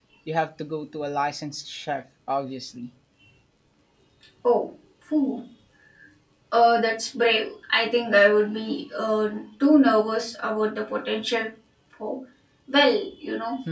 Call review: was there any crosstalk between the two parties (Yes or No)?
No